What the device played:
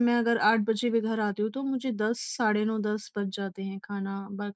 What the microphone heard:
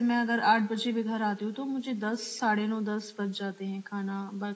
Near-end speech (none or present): none